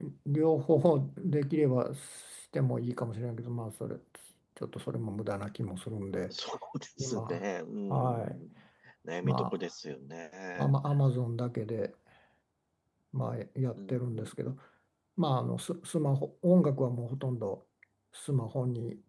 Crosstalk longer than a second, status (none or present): none